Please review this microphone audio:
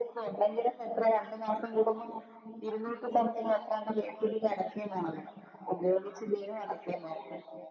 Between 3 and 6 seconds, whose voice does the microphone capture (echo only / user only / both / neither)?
echo only